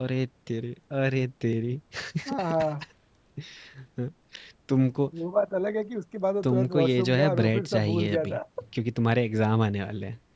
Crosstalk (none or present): present